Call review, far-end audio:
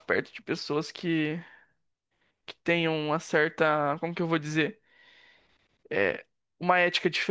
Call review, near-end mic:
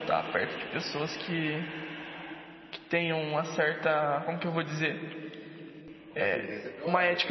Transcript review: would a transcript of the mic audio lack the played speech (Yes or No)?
No